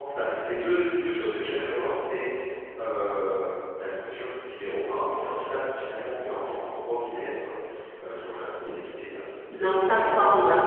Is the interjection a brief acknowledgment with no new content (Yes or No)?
No